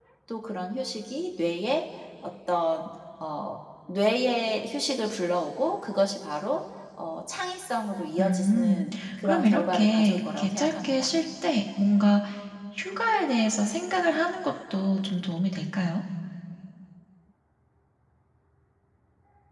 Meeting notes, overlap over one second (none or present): present